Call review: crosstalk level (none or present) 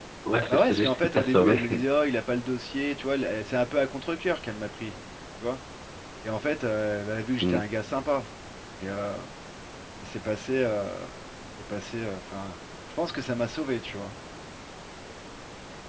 present